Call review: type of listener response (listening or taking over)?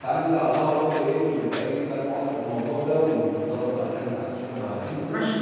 taking over